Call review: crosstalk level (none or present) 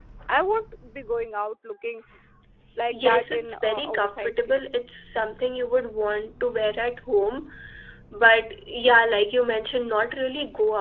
present